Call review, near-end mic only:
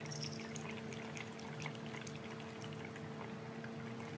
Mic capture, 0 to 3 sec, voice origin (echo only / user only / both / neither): neither